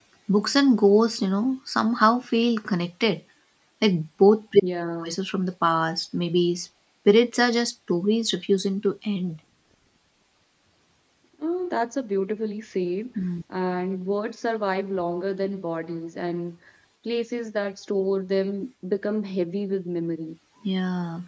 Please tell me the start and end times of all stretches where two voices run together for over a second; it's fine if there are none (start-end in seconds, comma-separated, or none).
none